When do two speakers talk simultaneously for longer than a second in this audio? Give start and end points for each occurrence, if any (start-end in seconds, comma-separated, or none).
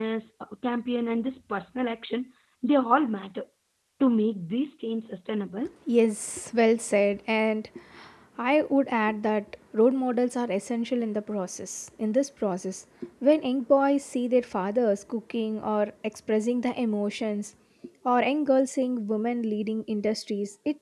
none